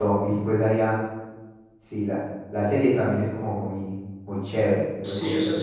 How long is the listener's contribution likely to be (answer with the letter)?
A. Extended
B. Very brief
A